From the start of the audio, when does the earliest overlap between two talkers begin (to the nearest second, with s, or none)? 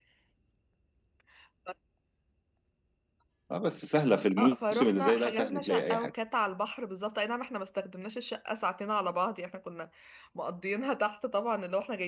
4 s